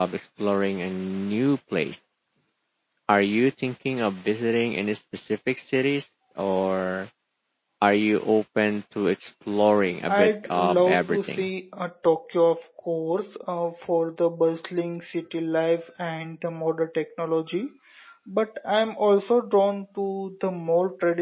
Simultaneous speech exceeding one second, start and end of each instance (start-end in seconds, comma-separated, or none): 10.1-11.5